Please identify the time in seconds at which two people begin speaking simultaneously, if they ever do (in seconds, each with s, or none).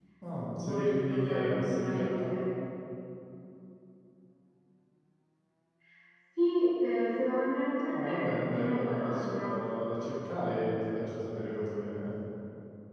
0.6 s